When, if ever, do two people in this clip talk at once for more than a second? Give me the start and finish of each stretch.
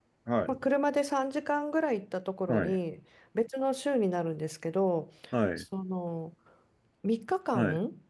none

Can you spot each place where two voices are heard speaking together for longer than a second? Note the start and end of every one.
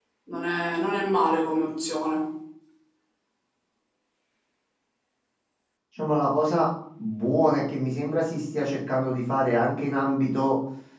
none

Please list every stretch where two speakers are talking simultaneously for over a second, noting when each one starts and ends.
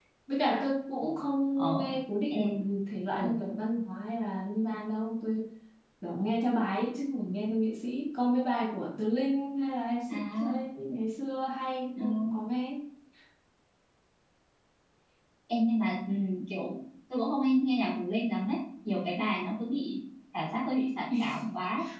none

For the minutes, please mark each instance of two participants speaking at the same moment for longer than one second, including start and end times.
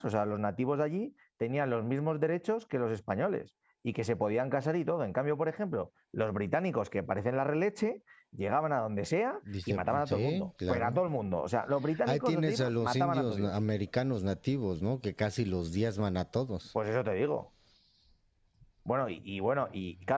9.7-11.0, 12.1-13.5

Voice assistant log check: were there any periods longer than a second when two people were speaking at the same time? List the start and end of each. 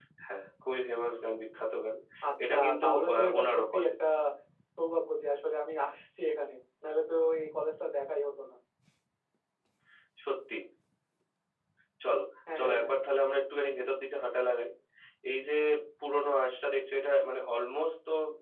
2.4-3.9

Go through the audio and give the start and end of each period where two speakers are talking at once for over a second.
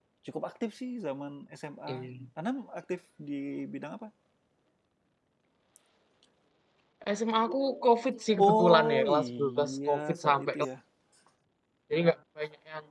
8.4-10.6

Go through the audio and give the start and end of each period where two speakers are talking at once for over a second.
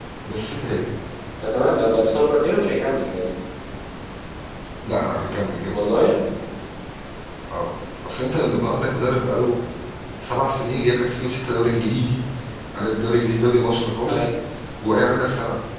none

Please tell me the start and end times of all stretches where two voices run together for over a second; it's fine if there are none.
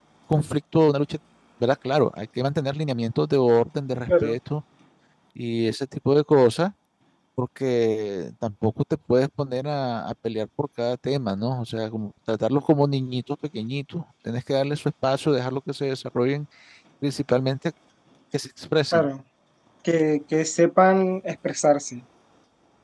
none

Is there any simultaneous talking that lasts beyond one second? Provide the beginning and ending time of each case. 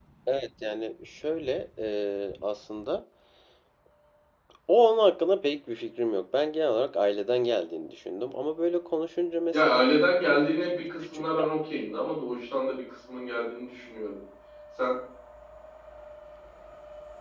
none

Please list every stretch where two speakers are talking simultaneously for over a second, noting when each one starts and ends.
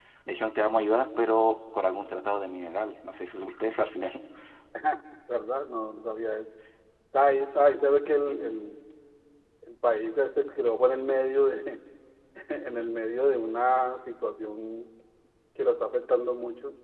none

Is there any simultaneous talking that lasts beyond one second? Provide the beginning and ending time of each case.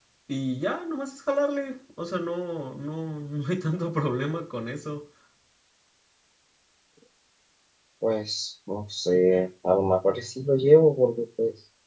none

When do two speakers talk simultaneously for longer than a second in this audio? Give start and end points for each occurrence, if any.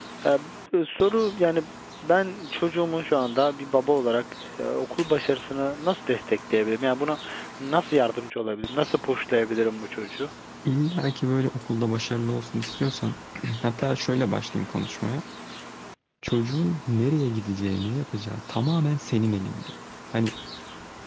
none

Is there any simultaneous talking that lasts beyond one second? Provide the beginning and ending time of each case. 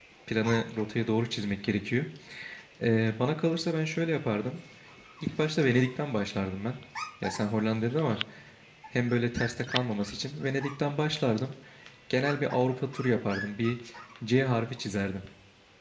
none

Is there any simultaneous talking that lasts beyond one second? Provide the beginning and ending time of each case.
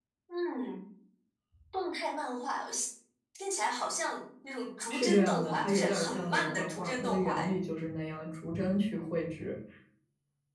4.9-7.5

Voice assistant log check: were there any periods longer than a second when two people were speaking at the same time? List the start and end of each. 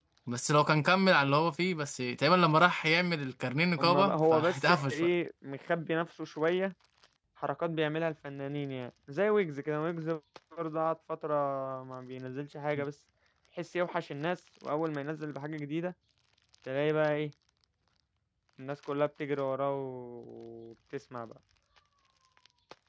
3.8-5.1

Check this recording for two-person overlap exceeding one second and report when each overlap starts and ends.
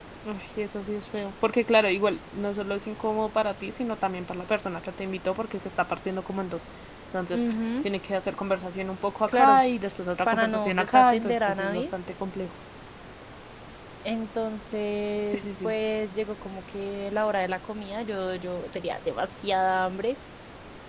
10.3-11.8

